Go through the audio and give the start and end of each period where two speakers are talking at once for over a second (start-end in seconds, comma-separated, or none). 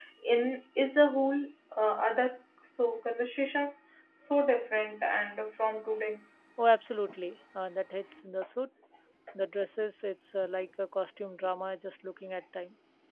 none